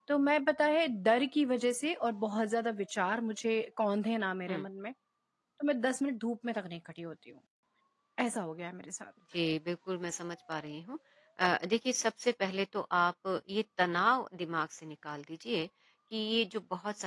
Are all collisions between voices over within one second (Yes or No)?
Yes